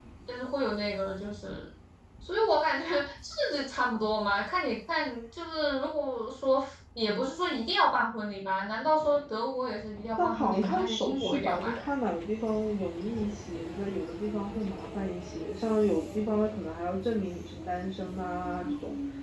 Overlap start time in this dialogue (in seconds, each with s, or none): 10.2 s